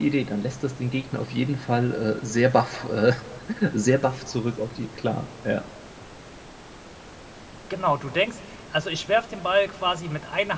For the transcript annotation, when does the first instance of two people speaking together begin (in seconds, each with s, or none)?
none